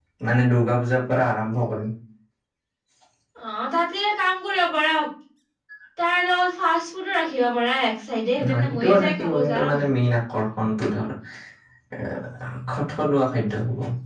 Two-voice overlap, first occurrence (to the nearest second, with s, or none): 8 s